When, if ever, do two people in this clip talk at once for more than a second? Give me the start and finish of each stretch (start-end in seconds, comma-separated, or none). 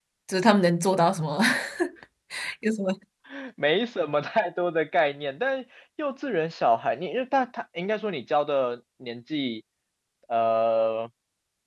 none